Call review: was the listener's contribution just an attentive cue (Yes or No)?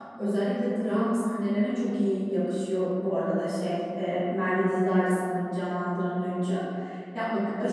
Yes